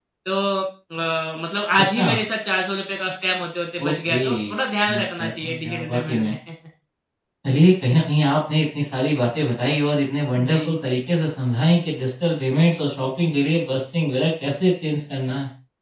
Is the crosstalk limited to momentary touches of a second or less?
No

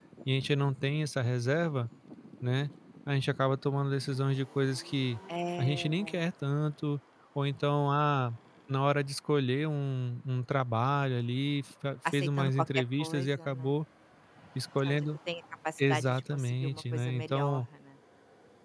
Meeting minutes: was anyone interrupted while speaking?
Yes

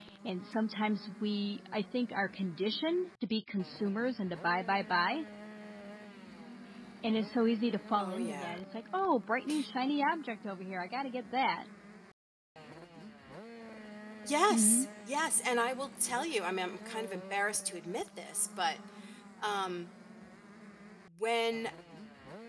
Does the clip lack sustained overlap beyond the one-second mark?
Yes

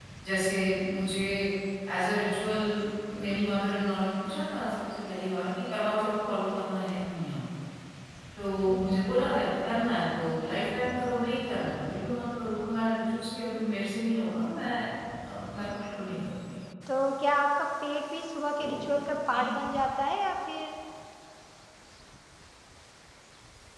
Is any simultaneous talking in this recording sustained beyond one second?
No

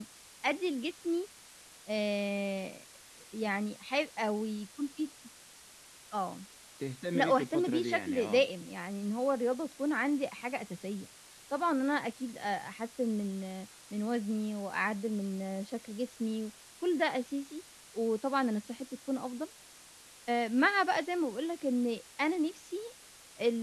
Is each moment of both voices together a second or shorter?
No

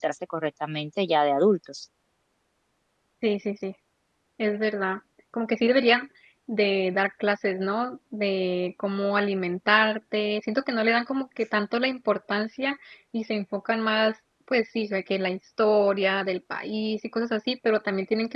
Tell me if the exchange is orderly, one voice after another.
Yes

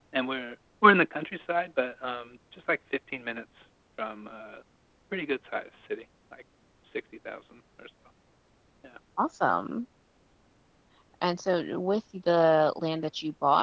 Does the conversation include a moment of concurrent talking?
No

